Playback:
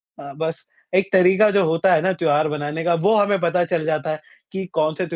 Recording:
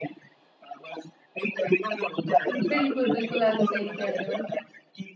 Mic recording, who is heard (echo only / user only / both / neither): both